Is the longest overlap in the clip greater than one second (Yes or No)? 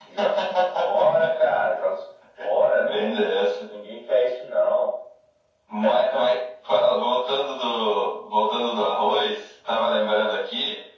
No